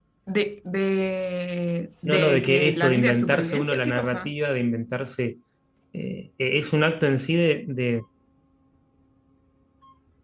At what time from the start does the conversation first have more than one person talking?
2.0 s

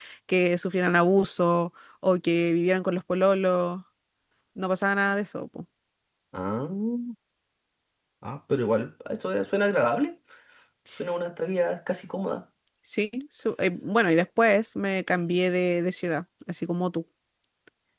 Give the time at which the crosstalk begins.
none

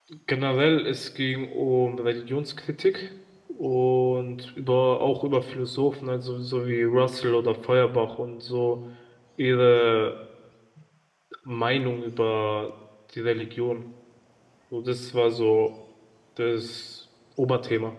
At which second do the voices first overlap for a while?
none

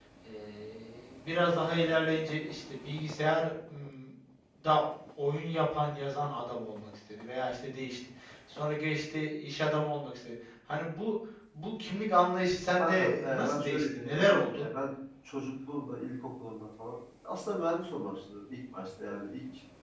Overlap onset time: 12.8 s

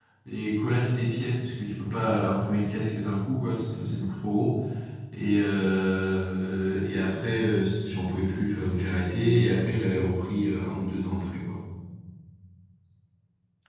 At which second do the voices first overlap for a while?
none

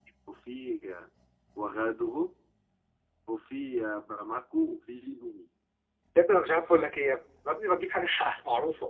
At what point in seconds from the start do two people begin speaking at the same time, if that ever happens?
none

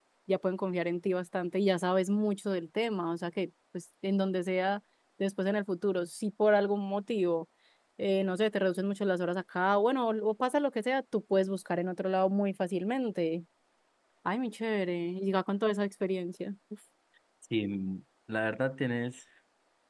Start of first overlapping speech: none

